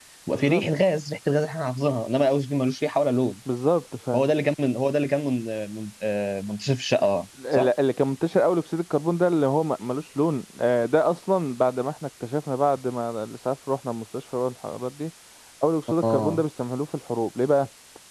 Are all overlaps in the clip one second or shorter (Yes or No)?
Yes